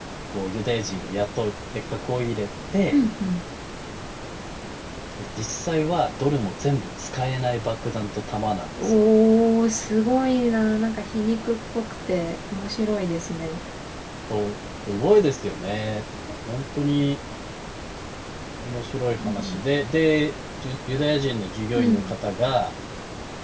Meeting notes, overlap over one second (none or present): none